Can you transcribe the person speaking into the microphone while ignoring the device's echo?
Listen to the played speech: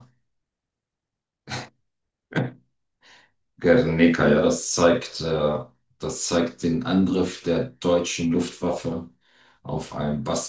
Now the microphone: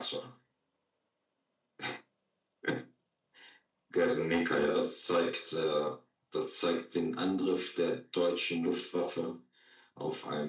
none

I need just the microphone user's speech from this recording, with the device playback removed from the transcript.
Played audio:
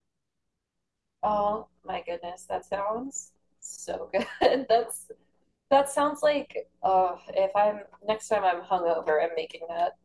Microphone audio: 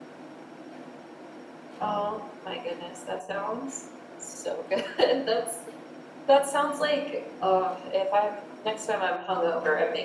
none

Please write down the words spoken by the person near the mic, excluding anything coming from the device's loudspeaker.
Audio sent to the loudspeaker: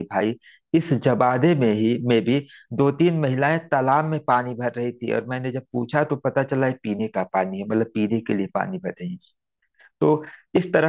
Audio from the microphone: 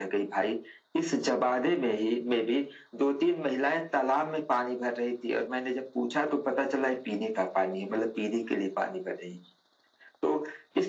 none

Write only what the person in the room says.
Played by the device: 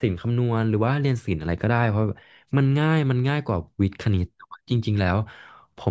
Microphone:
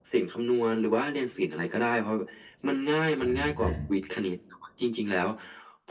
ใช่ใช่

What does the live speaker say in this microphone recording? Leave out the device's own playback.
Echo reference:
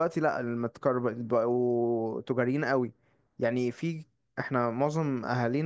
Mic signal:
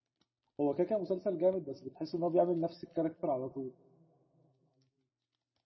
هو كده كده مسلسل جامد بس بتحس ان هو بيعمل نفس الكاركتر على طول

